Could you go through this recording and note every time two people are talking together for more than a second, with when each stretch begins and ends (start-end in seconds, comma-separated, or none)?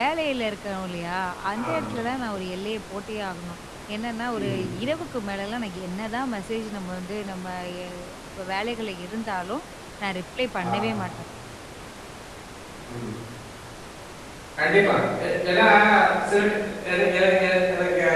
none